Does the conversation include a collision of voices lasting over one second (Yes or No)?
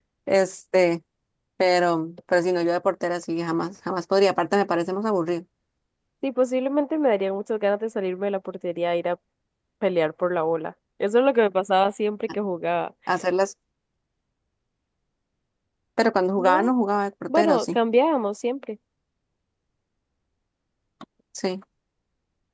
No